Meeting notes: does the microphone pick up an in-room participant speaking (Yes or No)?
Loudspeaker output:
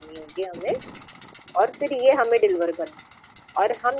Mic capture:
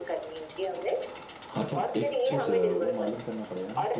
Yes